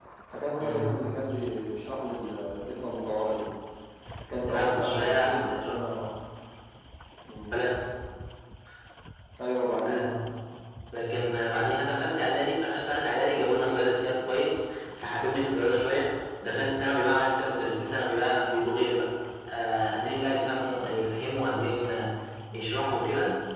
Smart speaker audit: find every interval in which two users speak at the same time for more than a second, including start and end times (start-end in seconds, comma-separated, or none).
4.5-5.8